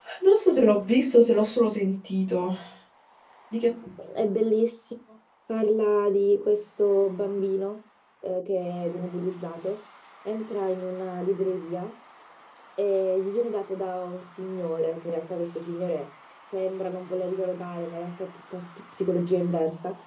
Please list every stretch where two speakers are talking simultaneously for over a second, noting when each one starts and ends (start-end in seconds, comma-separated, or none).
none